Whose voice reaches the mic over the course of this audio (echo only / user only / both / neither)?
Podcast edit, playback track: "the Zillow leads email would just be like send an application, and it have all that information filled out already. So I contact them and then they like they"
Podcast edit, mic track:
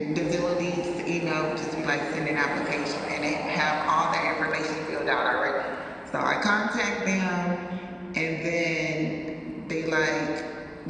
echo only